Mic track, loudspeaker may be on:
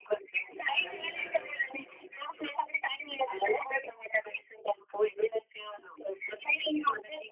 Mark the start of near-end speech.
0.7 s

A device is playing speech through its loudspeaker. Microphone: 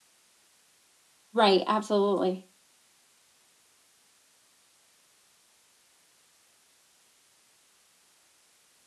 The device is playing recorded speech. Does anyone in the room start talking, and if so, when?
1.3 s

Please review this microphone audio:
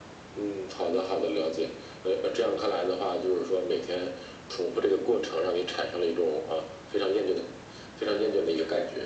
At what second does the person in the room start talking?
none

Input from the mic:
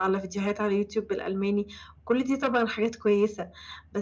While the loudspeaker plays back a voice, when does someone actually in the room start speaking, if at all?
none

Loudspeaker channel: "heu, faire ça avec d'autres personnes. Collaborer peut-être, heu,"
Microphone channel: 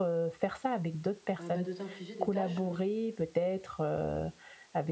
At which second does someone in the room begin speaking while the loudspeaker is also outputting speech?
1.4 s

